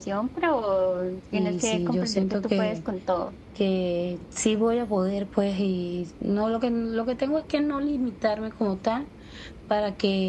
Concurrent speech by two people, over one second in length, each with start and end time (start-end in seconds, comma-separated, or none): 1.3-2.8